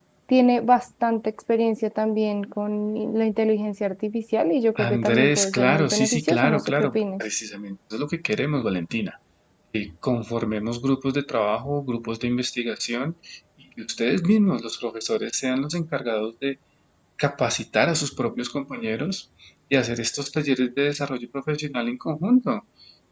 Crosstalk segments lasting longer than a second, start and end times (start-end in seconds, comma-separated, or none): 4.9-7.2